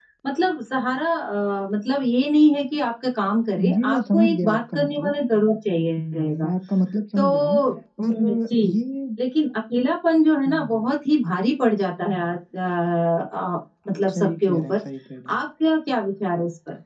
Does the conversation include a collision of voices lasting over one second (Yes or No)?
Yes